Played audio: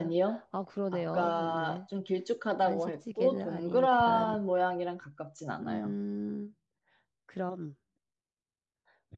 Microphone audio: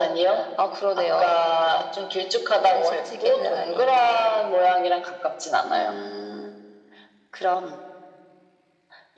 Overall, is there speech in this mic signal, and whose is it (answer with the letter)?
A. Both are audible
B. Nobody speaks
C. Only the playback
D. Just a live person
C